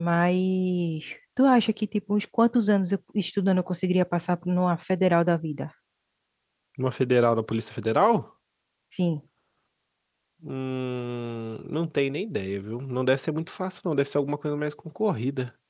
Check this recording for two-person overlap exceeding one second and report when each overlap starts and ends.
none

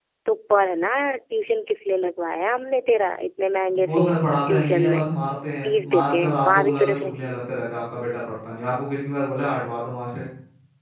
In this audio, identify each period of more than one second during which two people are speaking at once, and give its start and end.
5.6-7.1

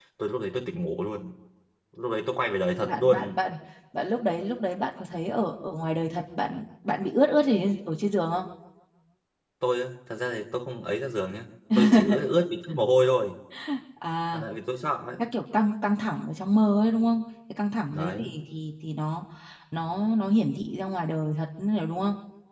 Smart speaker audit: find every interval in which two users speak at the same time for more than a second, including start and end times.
none

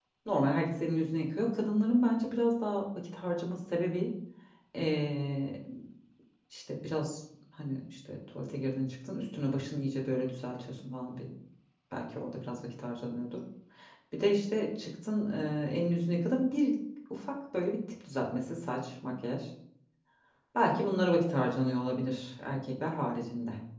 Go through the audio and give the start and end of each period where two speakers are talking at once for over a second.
none

